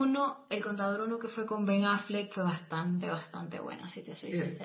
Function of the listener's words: taking over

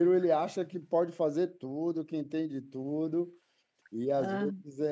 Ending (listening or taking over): listening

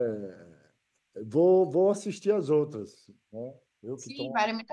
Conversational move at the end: taking over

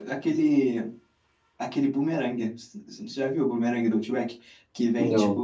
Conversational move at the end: listening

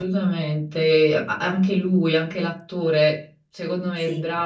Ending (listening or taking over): listening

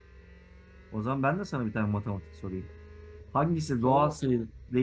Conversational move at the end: listening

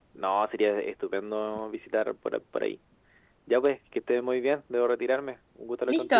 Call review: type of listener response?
taking over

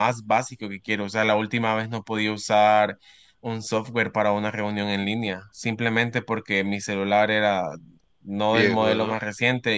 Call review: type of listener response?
listening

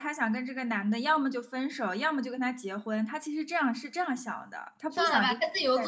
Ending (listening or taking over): taking over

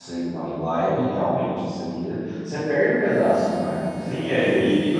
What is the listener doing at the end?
taking over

